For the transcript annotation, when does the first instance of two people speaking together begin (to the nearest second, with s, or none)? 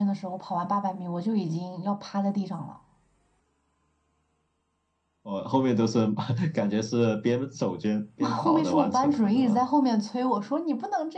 8 s